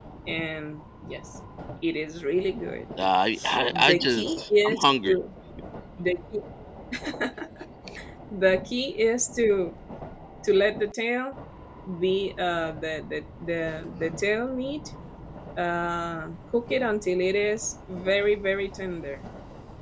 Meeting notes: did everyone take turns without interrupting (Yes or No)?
No